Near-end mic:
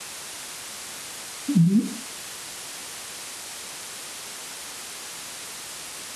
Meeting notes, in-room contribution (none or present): present